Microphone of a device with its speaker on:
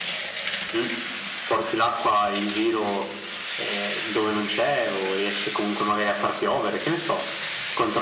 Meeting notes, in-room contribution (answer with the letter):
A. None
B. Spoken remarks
A